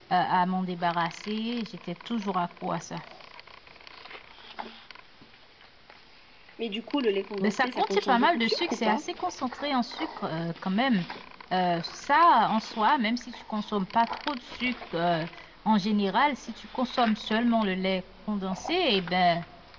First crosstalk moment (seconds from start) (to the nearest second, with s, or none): 7 s